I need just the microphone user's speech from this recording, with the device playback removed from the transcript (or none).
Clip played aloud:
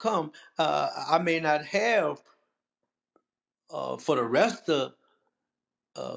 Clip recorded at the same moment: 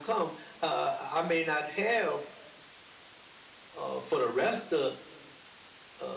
none